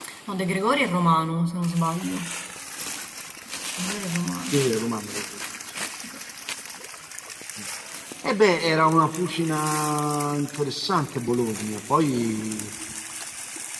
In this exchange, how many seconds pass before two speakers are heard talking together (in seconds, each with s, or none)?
none